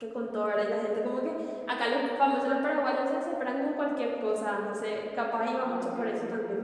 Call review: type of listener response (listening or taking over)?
taking over